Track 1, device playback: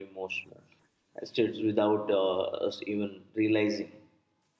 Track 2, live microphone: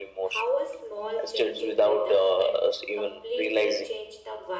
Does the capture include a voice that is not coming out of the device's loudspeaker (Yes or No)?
Yes